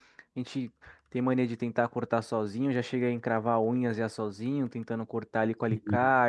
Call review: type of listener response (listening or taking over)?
listening